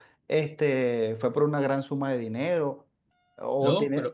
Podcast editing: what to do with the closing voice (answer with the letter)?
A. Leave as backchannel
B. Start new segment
B